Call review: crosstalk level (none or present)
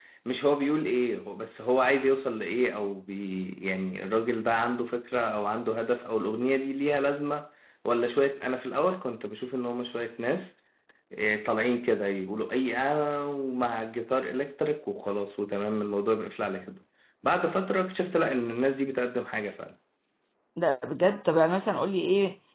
none